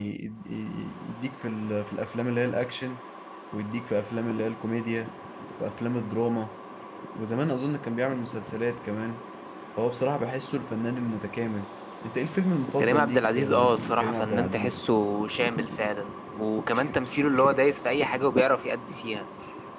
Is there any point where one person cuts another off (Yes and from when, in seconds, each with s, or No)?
Yes, from 12.8 s